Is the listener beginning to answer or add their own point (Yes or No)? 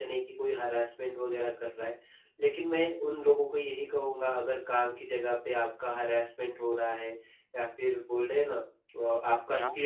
No